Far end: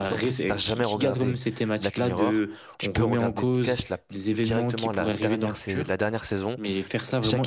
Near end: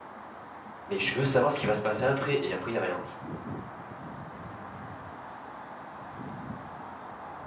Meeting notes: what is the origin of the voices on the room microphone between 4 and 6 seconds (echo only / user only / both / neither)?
neither